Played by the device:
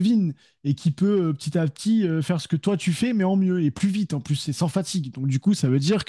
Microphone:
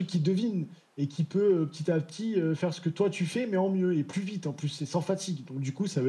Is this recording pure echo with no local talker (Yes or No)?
Yes